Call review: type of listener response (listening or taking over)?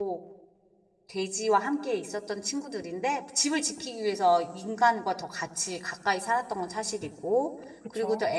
listening